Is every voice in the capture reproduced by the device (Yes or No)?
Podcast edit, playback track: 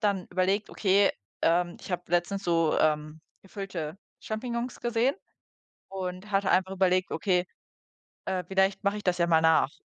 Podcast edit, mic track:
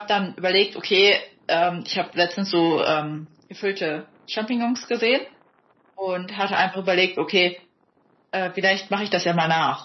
Yes